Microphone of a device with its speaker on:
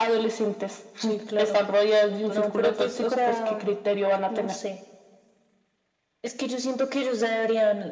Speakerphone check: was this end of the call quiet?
No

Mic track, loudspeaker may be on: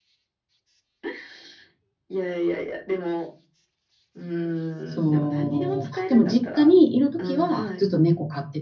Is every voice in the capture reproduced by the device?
No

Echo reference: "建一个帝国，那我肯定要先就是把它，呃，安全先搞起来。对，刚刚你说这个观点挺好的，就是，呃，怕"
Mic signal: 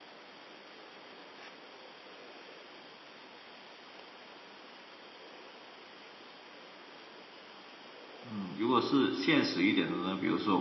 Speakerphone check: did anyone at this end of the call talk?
Yes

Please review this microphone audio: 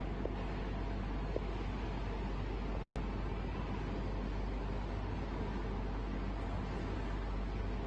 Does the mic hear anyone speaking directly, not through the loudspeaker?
No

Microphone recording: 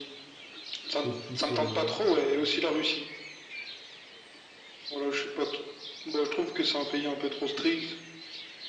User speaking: Yes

